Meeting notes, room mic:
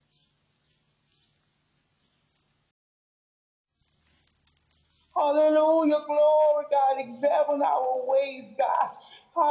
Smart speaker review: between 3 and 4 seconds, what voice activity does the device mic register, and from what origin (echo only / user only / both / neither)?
neither